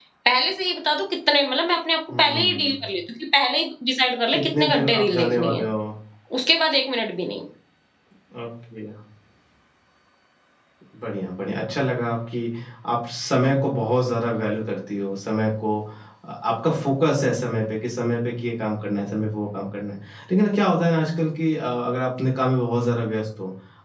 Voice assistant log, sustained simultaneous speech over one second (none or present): present